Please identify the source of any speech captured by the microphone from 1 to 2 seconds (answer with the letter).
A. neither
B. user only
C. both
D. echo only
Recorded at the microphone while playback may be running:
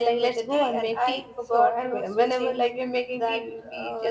C